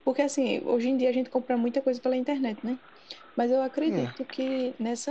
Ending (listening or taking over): listening